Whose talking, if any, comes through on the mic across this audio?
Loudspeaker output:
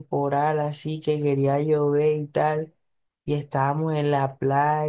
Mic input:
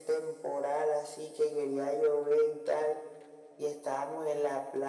echo only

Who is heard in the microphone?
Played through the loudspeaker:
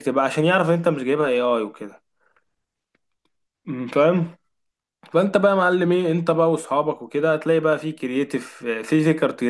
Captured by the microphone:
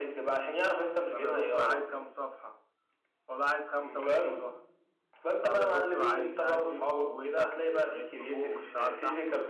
both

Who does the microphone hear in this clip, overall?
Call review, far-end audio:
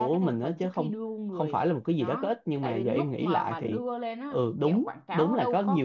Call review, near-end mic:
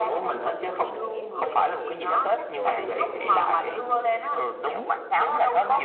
both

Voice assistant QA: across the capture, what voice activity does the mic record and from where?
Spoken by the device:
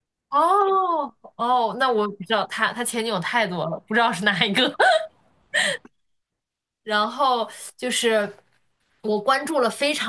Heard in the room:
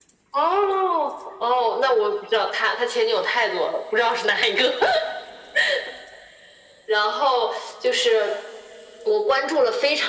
echo only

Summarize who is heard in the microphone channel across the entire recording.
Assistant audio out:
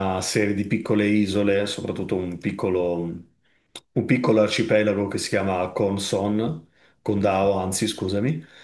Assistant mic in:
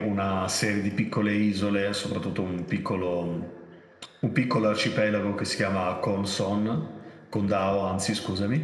echo only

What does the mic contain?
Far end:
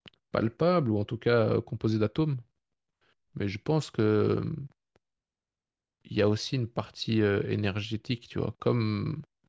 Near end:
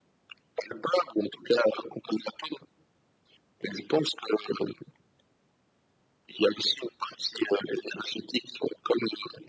echo only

